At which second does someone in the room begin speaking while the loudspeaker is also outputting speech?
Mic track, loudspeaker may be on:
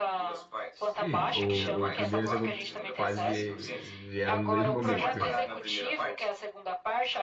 1.0 s

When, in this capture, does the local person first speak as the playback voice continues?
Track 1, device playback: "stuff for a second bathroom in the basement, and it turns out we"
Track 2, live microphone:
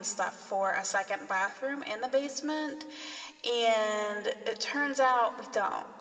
none

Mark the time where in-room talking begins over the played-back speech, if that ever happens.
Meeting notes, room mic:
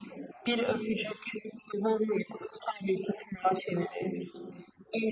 none

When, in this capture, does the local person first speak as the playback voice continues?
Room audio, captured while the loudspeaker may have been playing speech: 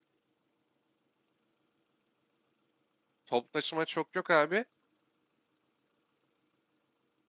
3.2 s

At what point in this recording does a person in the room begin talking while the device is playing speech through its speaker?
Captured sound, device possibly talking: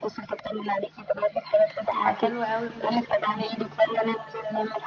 2.0 s

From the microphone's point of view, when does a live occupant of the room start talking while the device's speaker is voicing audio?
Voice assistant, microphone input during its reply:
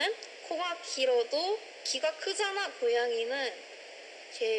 none

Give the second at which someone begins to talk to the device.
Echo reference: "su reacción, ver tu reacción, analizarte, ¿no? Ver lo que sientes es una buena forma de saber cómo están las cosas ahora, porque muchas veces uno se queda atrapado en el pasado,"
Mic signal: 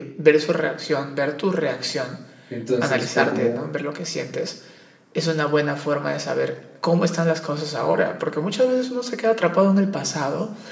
2.5 s

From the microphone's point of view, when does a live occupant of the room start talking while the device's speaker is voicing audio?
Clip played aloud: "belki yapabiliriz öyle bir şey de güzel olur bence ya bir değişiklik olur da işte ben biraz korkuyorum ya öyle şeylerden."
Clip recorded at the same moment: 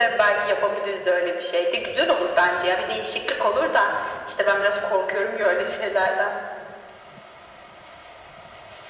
none

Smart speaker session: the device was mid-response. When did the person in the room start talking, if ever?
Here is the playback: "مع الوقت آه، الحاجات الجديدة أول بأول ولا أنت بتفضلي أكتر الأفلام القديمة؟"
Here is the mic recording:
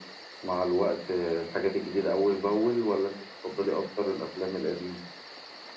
none

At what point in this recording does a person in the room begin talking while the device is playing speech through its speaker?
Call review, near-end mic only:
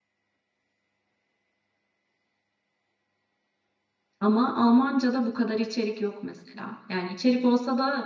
4.2 s

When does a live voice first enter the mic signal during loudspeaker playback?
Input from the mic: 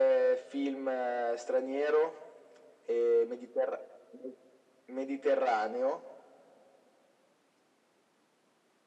none

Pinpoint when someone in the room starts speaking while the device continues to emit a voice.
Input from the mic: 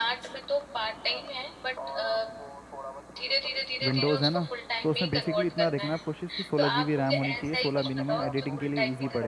3.8 s

